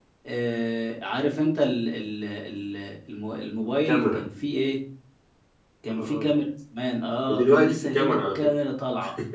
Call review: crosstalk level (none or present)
present